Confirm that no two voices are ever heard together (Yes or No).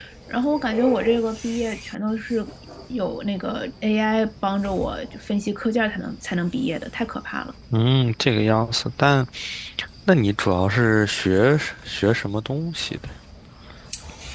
Yes